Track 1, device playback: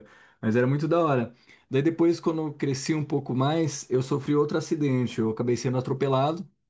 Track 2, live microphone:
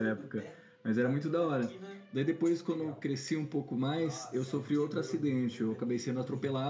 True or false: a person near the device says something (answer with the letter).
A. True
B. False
A